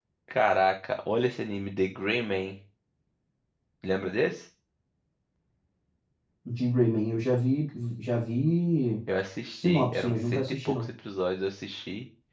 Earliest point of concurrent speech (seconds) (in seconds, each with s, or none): 9.6 s